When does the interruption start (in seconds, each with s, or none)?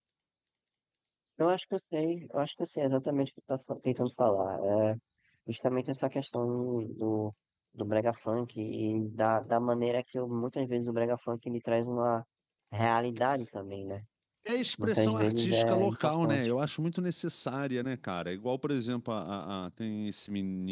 14.8 s